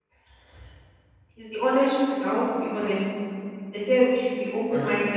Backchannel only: Yes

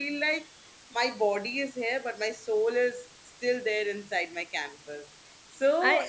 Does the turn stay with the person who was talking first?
Yes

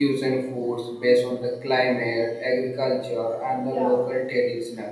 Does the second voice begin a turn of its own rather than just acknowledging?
No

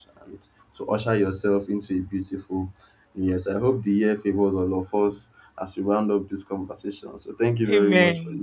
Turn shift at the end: Yes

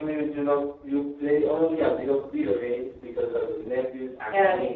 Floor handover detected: No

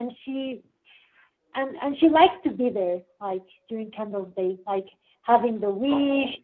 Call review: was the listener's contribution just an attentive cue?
Yes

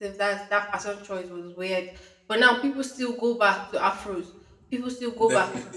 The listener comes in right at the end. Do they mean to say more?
No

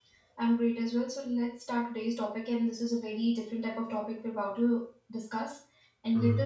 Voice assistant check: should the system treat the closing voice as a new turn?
No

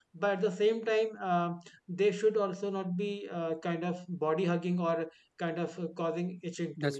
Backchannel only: Yes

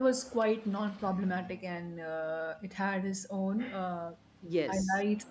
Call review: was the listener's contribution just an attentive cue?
Yes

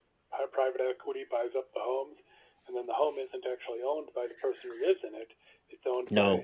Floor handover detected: No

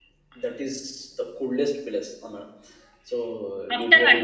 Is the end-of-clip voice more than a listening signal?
Yes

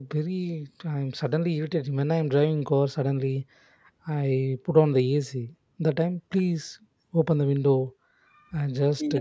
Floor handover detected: Yes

